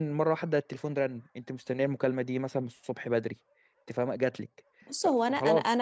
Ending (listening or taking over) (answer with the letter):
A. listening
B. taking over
B